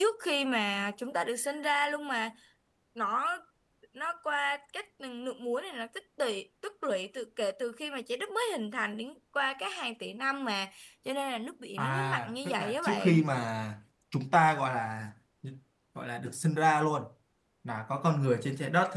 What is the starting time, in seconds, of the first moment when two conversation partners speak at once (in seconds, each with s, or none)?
11.8 s